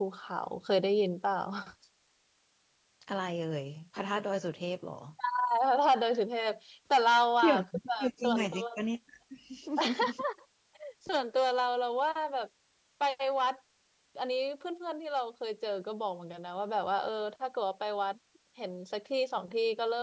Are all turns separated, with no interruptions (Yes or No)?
No